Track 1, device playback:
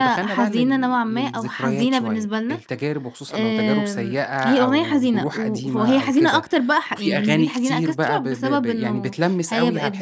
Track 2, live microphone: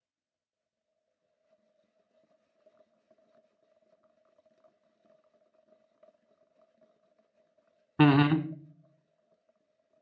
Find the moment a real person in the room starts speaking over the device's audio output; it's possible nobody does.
8.0 s

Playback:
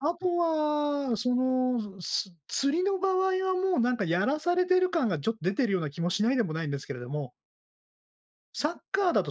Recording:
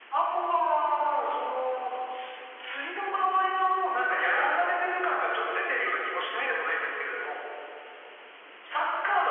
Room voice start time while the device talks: none

